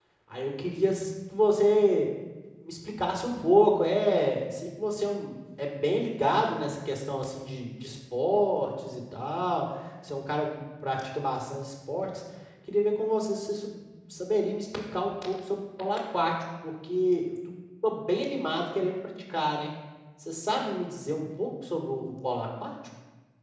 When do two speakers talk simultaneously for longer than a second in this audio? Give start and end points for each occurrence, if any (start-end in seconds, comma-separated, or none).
none